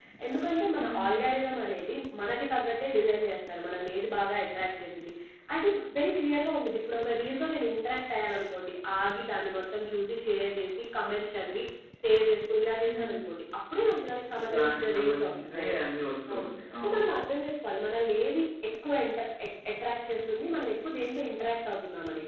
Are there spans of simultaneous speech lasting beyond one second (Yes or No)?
Yes